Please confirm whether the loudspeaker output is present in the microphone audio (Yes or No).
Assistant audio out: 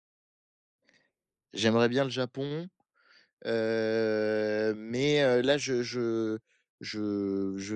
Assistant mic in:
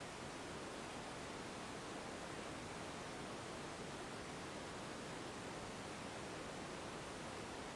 No